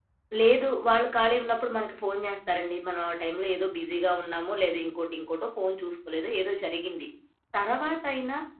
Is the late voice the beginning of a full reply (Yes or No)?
No